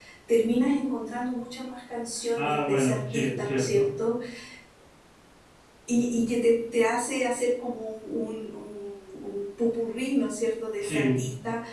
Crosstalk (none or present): present